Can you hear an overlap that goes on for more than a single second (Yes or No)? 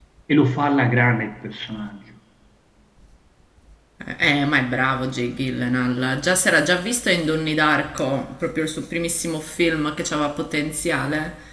No